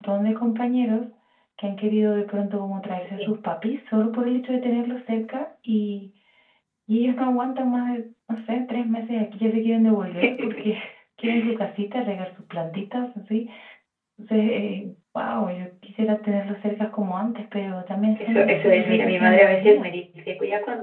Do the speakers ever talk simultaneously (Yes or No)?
Yes